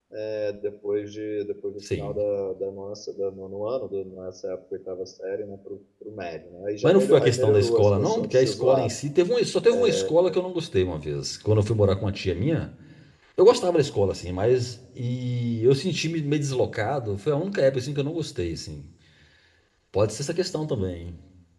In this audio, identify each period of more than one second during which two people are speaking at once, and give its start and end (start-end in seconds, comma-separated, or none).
6.8-8.9